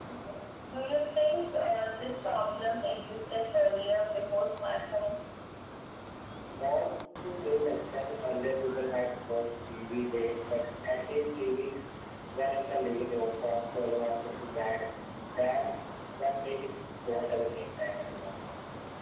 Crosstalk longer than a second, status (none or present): none